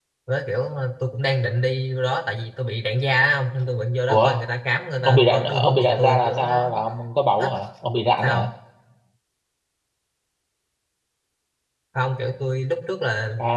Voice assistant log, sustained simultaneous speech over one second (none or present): present